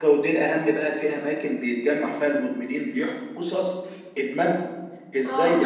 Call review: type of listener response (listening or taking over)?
listening